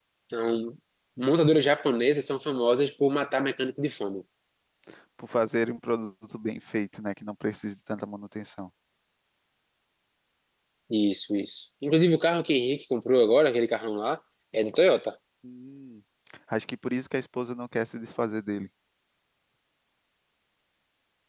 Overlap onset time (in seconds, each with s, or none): none